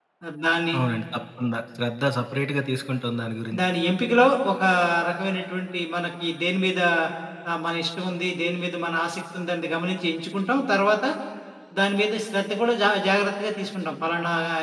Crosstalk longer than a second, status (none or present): none